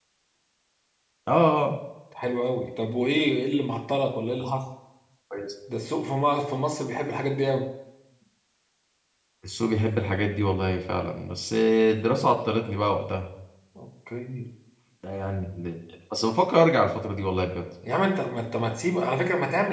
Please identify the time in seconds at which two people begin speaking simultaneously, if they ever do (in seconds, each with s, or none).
none